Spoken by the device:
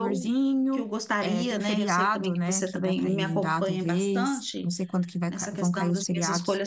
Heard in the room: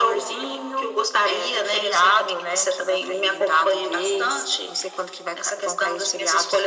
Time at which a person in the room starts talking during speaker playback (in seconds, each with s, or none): none